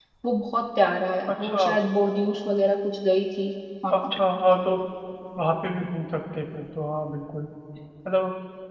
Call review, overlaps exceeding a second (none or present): none